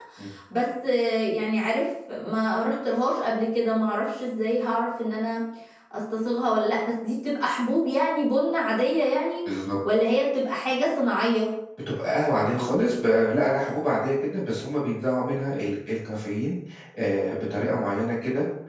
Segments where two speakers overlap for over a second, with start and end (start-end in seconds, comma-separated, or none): none